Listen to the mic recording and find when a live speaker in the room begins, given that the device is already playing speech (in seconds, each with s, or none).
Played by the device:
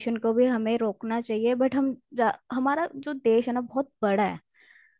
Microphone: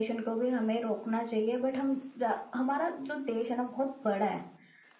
none